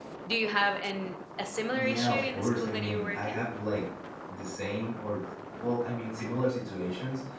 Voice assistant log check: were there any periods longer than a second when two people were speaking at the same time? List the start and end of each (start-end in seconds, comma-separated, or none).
1.7-3.4